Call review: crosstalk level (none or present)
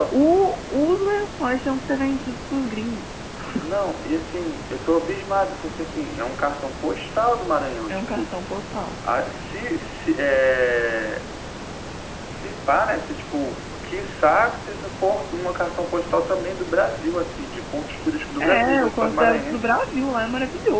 present